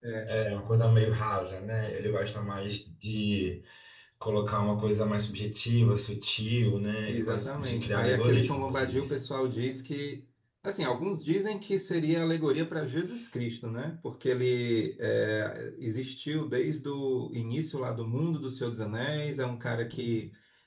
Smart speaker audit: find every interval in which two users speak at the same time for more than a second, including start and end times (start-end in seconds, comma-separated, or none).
7.1-9.2